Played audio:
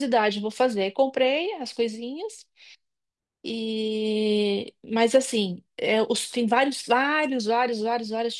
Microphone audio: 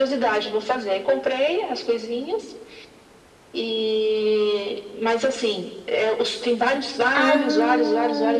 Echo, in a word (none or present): present